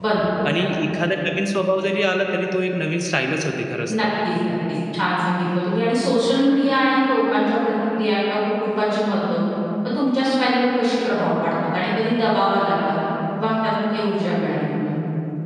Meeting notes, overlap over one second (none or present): none